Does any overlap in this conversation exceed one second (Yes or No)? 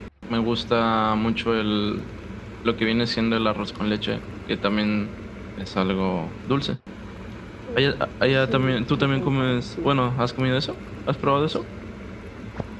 Yes